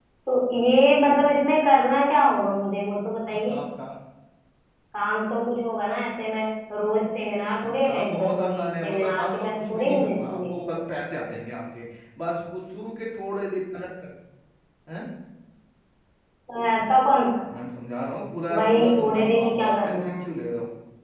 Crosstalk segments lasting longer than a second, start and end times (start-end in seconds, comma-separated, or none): 7.6-10.8, 18.6-20.3